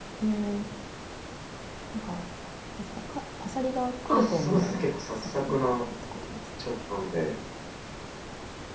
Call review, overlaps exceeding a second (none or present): present